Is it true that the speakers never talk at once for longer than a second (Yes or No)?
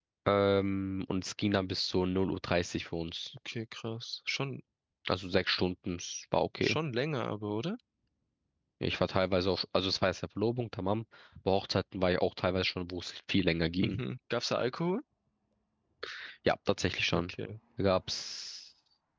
Yes